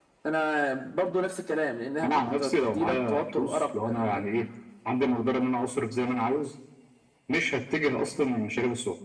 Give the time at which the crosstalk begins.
2.0 s

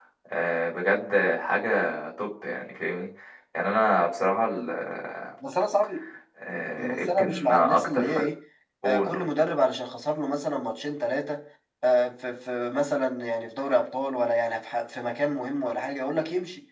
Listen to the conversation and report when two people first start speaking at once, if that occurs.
6.8 s

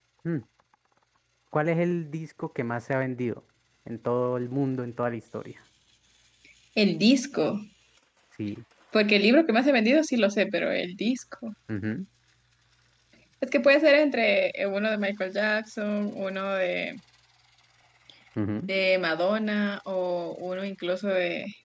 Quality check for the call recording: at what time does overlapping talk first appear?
none

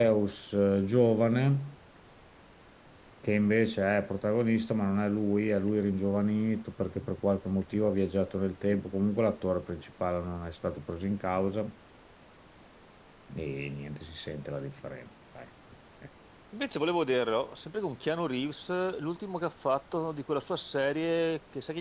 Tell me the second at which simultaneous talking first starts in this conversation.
none

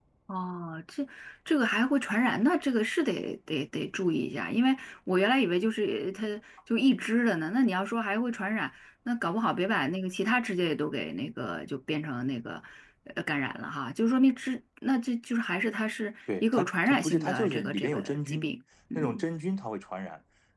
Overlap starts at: 16.4 s

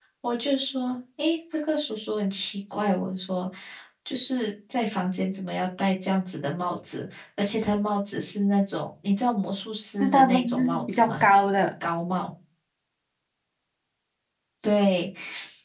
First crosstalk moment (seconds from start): 10.0 s

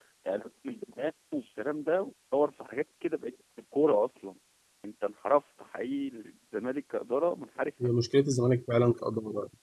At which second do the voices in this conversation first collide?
none

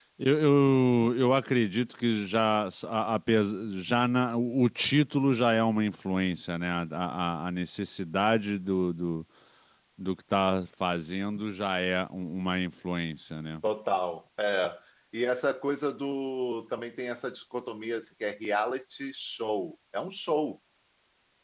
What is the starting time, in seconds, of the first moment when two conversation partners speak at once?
none

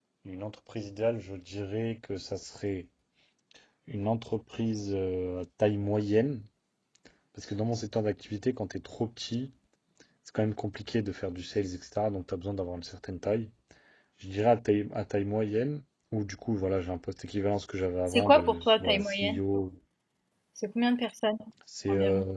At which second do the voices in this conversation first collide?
18.1 s

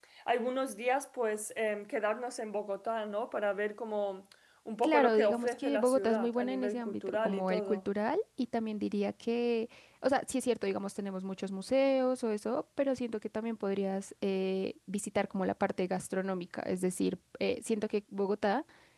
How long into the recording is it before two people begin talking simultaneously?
4.8 s

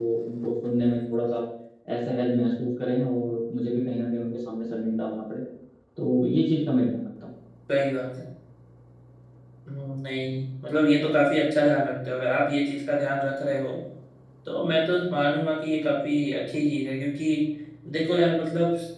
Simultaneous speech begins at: none

